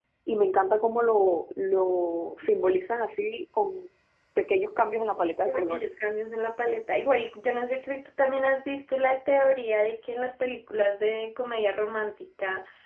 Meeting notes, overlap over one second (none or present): none